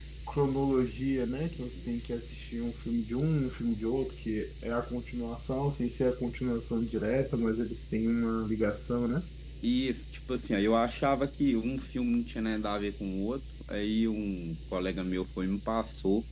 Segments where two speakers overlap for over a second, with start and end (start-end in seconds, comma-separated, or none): none